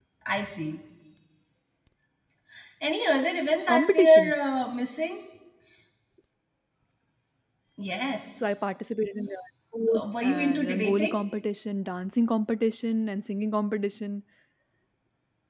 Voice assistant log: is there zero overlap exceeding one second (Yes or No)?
No